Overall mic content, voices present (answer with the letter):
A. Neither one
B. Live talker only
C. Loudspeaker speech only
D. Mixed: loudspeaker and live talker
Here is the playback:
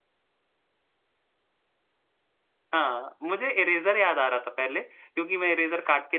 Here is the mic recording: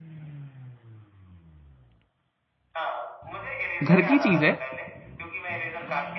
D